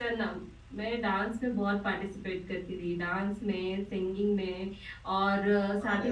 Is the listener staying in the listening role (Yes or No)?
Yes